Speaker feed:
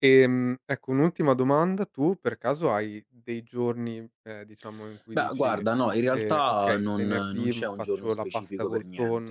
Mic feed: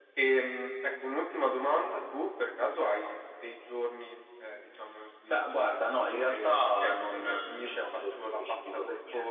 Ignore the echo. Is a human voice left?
No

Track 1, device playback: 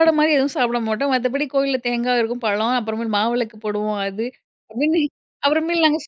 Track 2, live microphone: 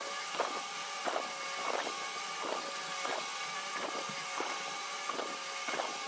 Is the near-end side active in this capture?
No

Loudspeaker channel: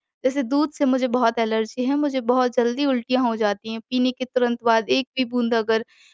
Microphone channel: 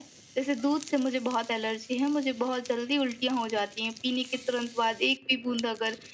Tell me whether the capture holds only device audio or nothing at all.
Yes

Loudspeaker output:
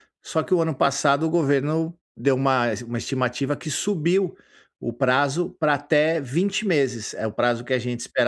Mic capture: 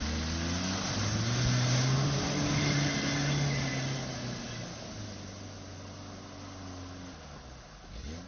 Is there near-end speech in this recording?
No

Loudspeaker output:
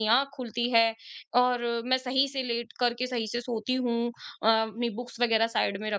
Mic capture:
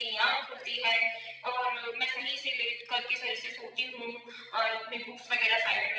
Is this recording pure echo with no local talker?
Yes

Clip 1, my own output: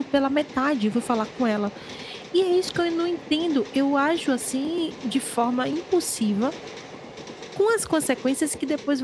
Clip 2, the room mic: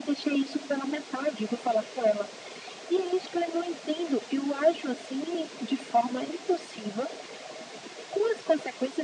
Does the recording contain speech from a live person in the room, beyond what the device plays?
No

